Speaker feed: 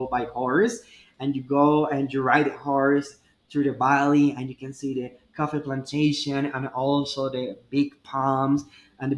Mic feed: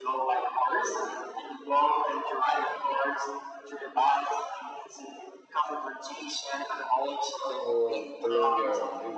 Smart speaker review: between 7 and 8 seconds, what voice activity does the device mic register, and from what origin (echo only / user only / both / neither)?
both